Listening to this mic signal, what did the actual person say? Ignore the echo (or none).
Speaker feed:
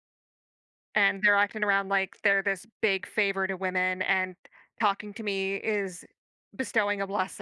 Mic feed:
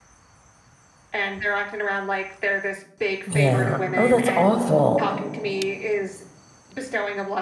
Yeah. Oh, that's awful.